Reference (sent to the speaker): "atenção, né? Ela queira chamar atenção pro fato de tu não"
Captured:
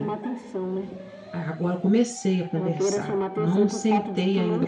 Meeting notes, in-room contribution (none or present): present